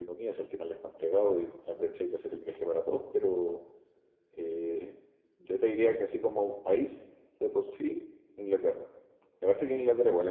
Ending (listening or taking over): listening